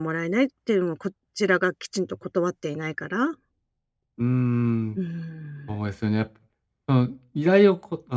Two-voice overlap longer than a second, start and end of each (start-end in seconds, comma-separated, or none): none